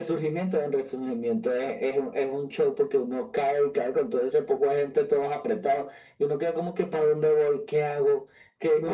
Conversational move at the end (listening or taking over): taking over